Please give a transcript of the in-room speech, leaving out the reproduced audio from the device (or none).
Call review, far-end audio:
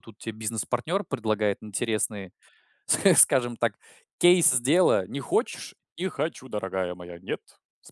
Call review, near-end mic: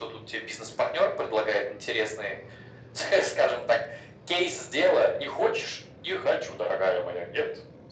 none